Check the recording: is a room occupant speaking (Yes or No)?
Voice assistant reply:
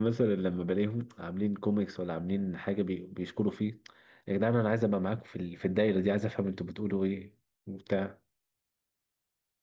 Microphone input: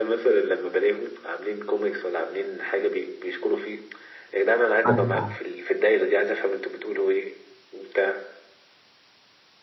Yes